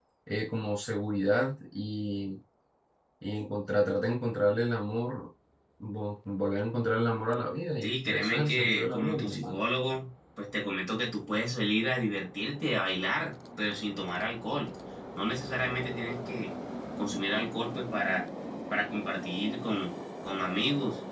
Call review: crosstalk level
present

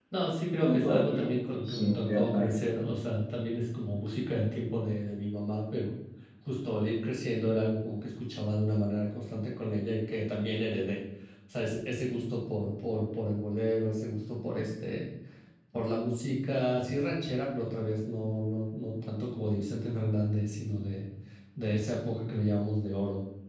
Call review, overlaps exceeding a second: present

